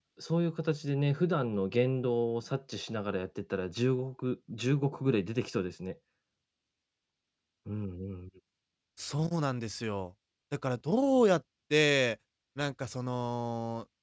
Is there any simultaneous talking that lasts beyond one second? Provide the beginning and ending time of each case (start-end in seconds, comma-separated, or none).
none